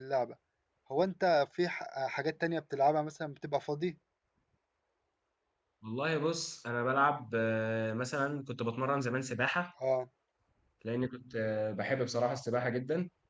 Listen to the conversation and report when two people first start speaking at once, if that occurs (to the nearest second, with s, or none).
none